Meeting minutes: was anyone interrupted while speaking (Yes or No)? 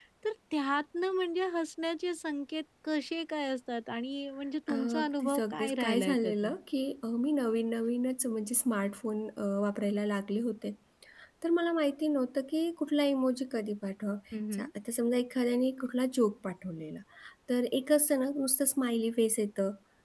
Yes